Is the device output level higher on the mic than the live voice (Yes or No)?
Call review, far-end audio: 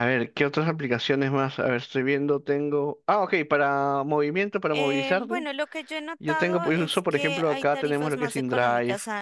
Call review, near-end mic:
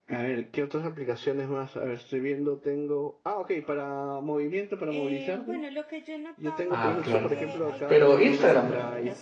No